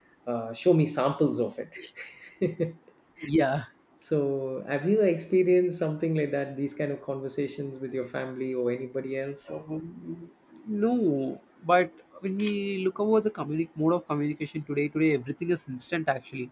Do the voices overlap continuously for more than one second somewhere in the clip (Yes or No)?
No